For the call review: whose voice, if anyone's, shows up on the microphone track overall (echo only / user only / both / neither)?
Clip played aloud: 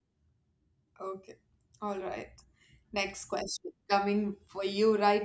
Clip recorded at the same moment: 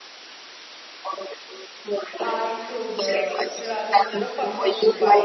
both